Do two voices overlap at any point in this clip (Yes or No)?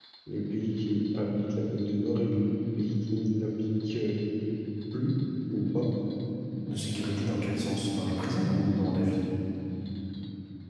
No